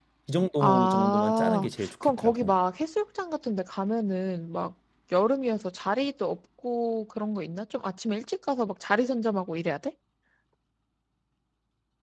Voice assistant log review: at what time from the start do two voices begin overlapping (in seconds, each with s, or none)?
0.6 s